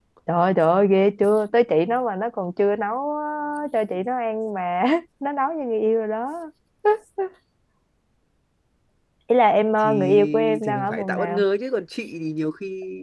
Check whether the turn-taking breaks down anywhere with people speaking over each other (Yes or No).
Yes